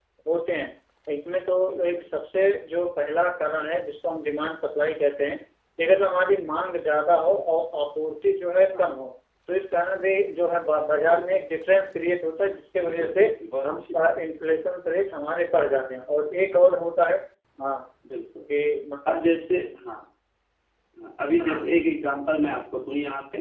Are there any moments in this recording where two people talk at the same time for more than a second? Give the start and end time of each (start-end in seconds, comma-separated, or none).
none